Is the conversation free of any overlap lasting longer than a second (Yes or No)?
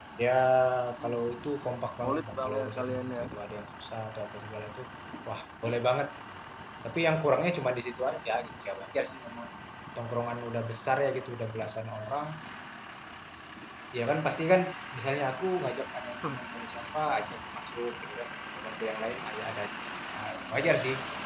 No